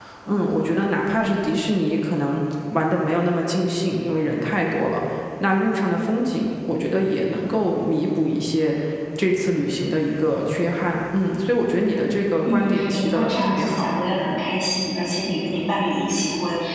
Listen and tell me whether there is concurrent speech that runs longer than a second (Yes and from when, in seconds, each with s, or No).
Yes, from 12.4 s